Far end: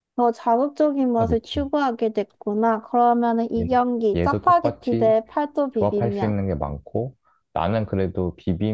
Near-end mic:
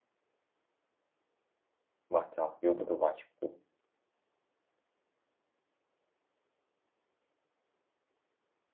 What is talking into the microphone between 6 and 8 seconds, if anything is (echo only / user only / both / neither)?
neither